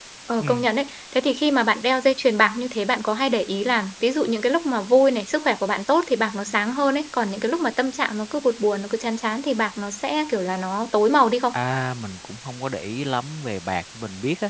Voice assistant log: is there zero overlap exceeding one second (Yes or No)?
Yes